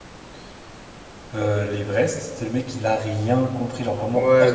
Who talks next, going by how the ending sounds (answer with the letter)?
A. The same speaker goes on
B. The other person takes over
B